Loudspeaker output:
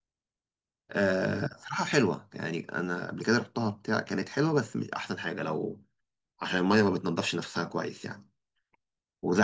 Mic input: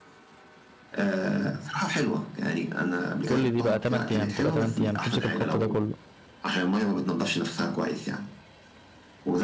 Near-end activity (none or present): present